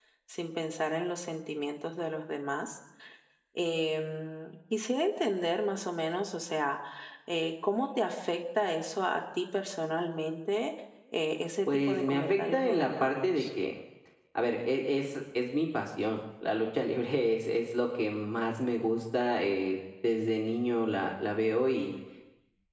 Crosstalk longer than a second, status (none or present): present